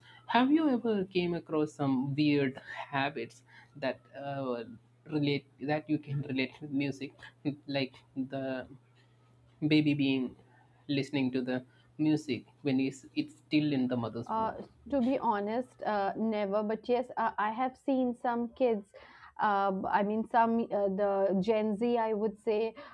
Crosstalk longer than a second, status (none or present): none